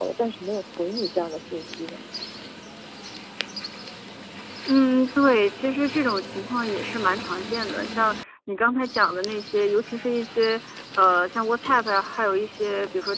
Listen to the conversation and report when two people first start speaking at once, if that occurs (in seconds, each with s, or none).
none